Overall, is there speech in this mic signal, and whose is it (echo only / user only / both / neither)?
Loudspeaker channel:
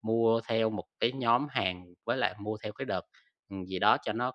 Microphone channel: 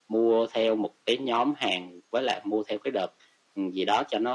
echo only